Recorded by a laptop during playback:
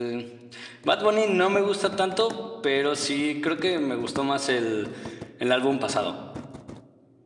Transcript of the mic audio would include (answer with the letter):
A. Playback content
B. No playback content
B